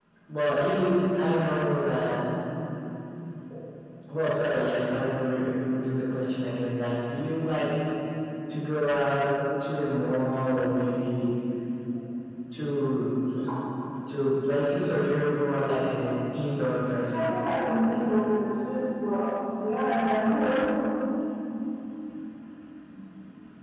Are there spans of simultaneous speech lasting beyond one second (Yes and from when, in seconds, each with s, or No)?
No